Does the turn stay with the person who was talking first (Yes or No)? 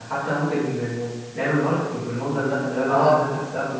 No